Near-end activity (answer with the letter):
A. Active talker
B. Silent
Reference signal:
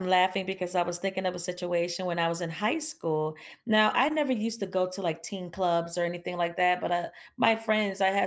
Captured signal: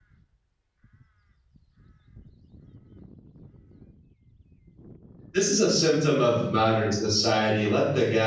A